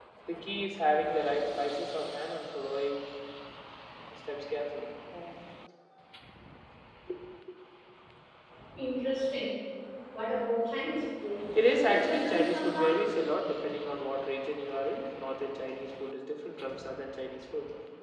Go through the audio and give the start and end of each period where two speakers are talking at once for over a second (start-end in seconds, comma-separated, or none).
11.7-13.0